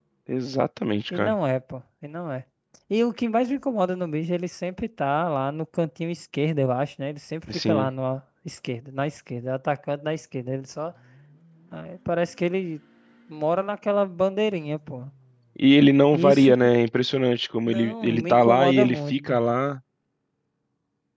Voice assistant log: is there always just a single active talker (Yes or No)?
No